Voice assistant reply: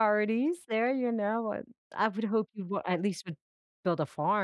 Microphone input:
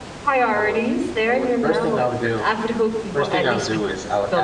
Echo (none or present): present